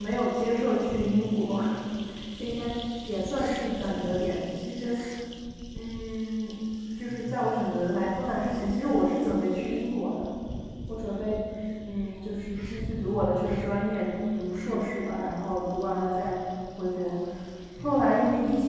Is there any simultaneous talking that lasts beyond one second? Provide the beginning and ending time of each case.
none

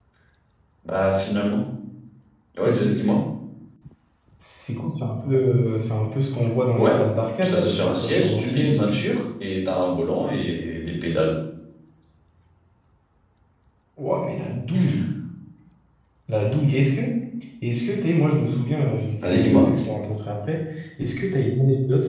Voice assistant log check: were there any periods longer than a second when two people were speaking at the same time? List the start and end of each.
7.4-9.1

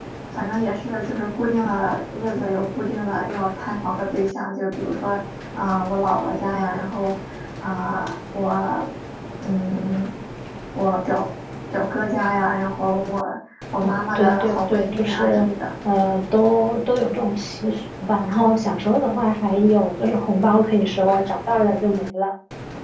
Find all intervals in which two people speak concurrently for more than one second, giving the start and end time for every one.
13.8-15.5

